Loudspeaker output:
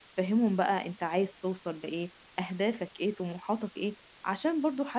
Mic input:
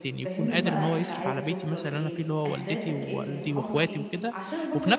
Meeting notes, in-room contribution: present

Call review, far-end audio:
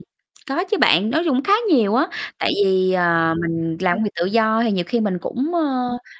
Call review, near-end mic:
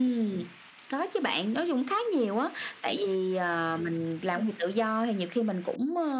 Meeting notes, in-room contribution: none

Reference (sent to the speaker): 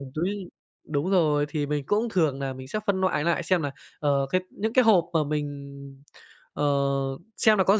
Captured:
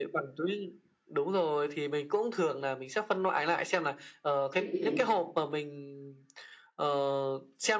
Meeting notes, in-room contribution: present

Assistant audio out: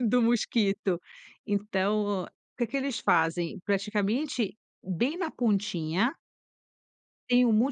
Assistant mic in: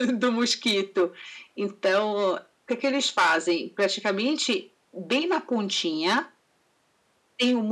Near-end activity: none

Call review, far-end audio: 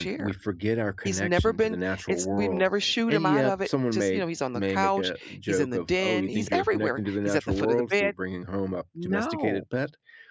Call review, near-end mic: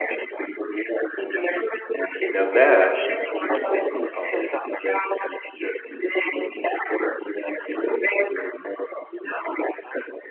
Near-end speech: present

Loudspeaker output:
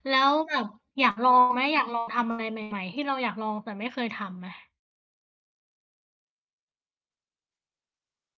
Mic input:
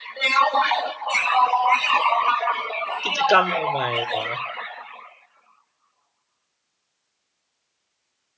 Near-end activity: present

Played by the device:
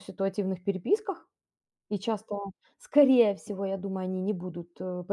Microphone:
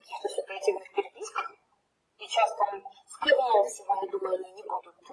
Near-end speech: none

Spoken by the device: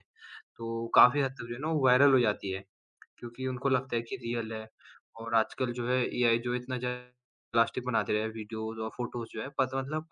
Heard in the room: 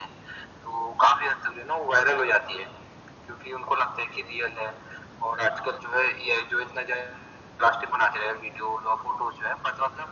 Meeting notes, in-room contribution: none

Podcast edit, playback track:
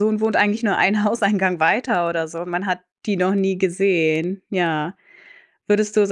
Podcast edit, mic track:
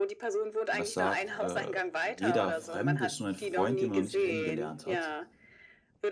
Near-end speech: present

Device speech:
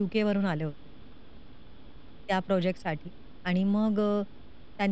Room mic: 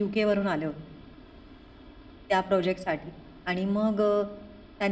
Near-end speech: none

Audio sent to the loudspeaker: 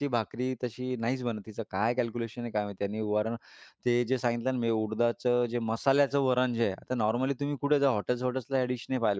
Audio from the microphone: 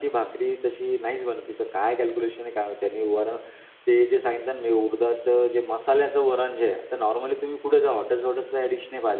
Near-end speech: none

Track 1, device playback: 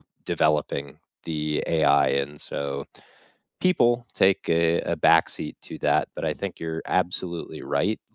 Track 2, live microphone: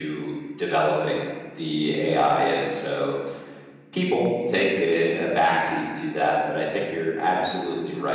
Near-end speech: none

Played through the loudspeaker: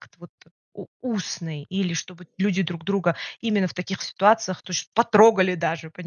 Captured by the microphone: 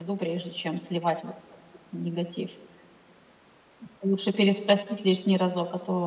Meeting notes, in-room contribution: present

